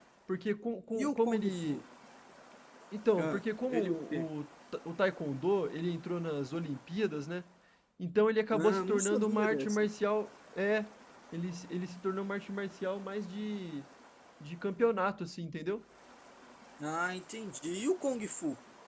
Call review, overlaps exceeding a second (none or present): present